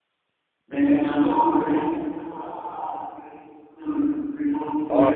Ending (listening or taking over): taking over